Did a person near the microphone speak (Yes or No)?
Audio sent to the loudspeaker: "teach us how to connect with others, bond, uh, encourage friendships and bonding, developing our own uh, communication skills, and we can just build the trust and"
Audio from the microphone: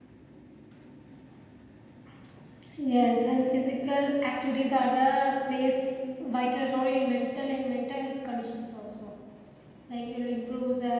Yes